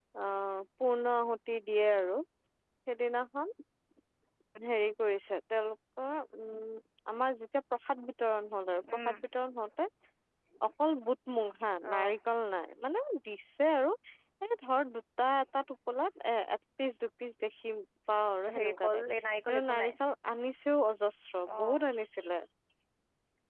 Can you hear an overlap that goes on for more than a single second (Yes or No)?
No